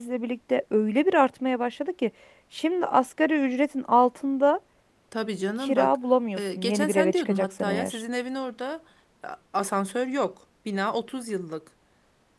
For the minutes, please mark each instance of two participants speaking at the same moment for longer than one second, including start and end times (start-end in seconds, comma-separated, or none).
6.4-8.0